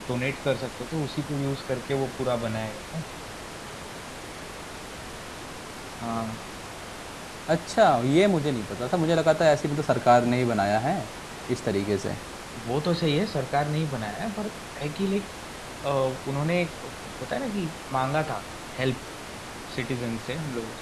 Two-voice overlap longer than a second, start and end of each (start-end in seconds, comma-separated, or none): none